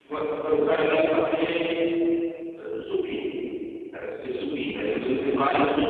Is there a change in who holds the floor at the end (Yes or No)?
No